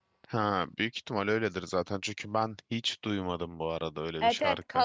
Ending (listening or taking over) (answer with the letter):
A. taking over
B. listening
A